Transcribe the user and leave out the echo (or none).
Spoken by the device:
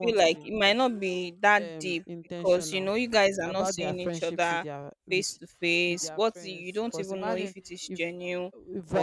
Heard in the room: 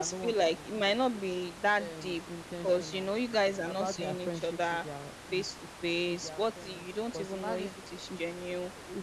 none